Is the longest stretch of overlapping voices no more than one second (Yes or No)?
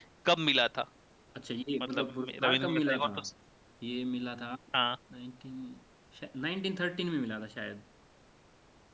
No